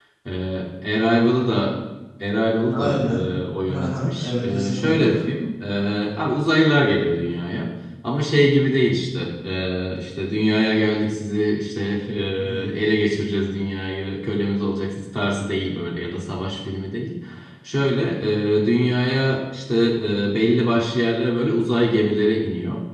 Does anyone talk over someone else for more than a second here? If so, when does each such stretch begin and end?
3.7-5.2

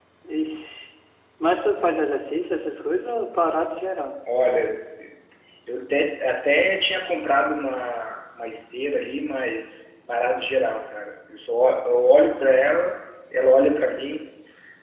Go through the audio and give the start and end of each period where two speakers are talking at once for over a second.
none

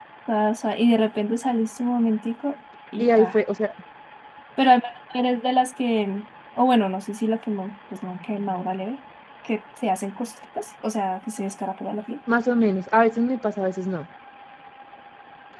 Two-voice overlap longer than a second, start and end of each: none

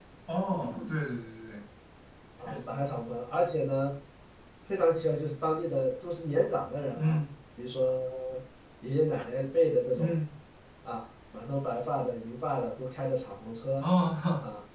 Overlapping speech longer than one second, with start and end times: none

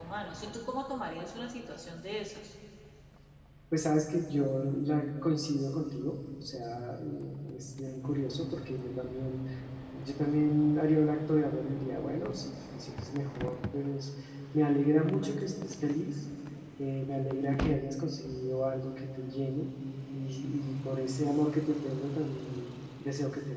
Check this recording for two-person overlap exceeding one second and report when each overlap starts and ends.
none

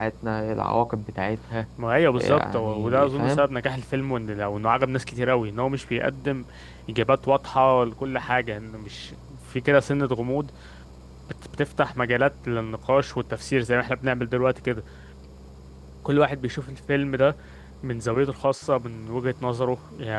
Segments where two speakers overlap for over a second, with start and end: 2.1-3.4

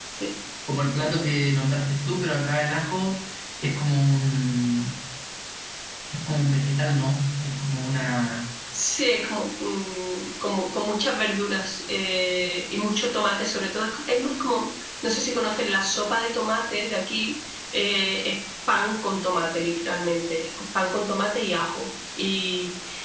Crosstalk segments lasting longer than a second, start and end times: none

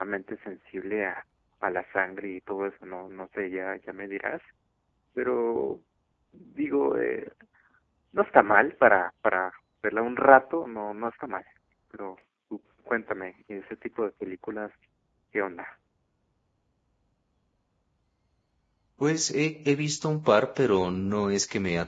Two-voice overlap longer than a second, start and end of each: none

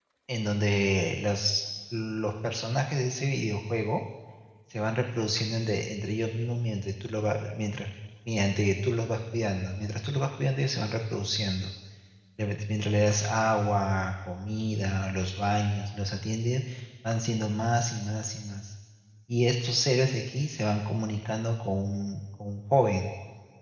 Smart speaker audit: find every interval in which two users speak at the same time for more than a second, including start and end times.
none

